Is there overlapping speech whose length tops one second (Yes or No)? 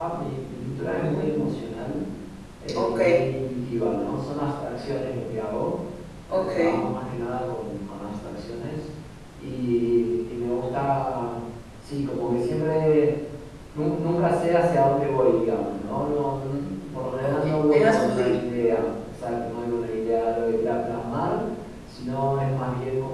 Yes